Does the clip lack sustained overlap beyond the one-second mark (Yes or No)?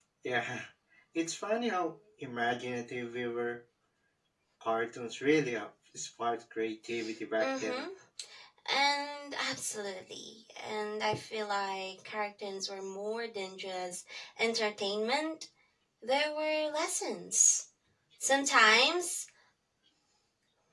Yes